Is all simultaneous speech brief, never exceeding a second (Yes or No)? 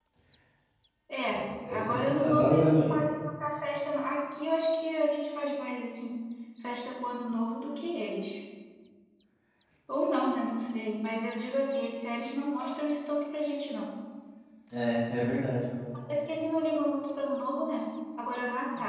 No